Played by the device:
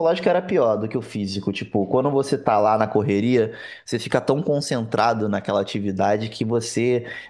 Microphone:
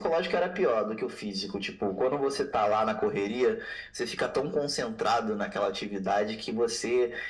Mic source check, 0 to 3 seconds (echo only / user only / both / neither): echo only